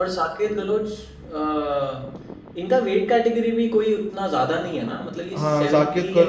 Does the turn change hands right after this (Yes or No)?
Yes